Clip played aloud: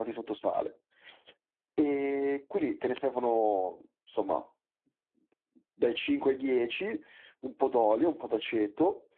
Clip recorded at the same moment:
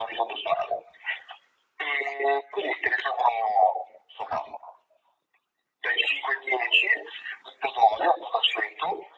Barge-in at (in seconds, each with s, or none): none